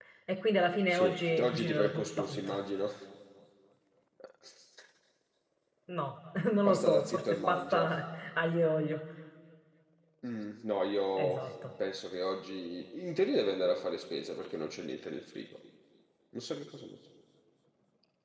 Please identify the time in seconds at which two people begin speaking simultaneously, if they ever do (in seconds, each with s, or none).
0.9 s